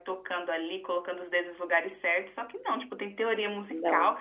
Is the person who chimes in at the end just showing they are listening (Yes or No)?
Yes